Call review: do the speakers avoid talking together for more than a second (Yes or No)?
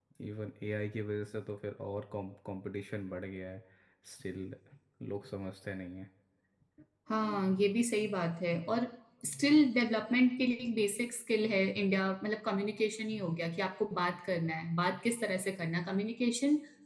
Yes